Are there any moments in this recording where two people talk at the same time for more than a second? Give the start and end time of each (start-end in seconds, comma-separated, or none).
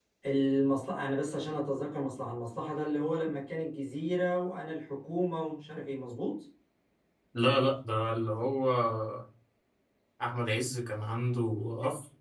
none